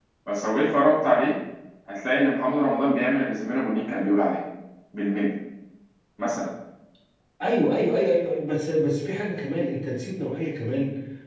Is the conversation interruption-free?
Yes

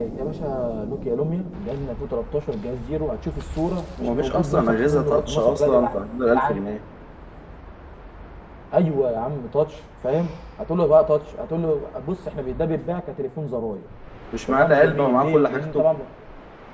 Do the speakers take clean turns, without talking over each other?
No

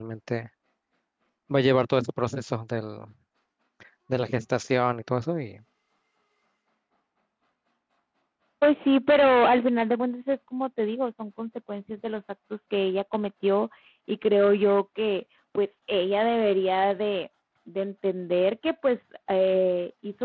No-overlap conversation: Yes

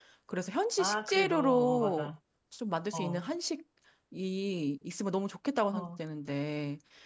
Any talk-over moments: Yes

